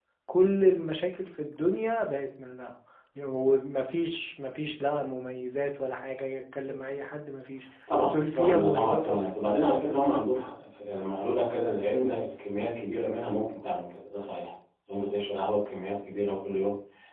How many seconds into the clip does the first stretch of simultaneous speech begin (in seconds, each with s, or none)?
7.9 s